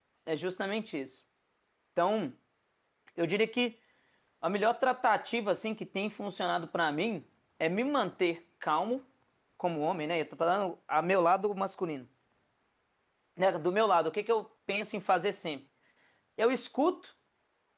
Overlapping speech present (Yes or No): No